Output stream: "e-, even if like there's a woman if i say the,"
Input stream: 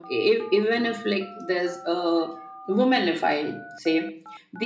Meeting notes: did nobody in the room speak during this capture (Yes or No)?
Yes